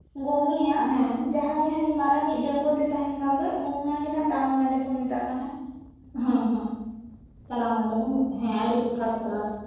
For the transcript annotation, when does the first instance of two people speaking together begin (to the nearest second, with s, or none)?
none